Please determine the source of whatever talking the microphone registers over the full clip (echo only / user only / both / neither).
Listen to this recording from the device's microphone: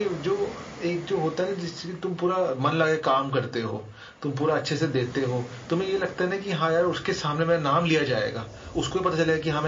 echo only